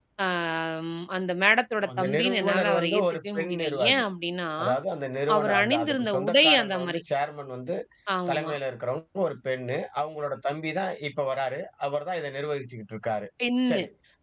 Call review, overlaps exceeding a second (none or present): present